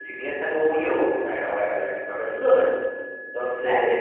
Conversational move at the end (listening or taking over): listening